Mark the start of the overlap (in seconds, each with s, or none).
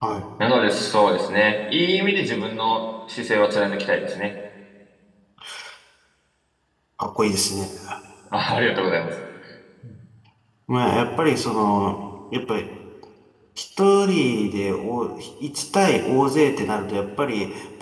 none